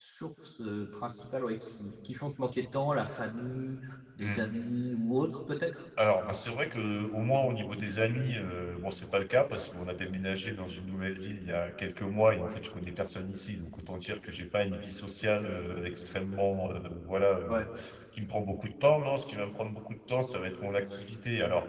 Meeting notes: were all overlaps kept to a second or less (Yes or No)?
Yes